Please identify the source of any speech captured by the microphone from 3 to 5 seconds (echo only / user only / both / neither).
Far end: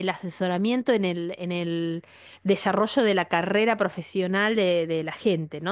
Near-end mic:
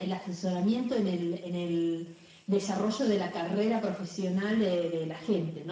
echo only